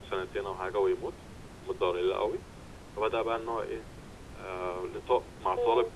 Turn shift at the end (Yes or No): No